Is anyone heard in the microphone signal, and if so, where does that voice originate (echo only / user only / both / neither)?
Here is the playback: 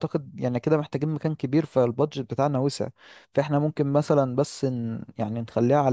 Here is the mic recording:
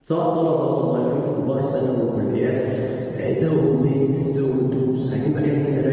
user only